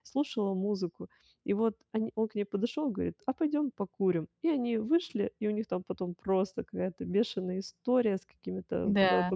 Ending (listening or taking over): listening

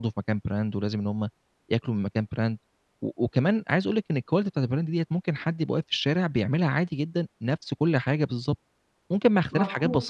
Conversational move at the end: taking over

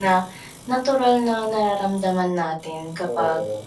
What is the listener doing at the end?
listening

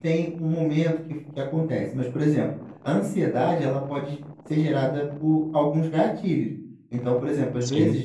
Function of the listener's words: listening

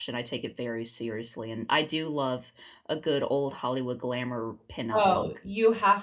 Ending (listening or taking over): taking over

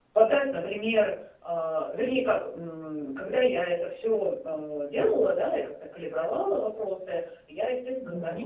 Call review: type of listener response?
listening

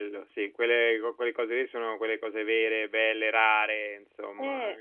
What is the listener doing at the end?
taking over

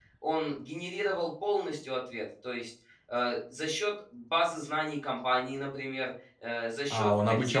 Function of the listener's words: taking over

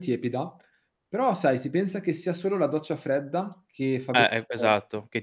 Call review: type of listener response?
taking over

